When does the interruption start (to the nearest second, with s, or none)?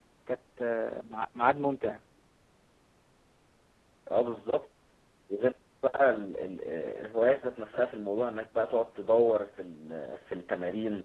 none